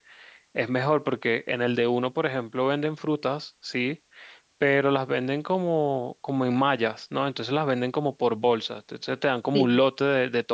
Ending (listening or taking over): listening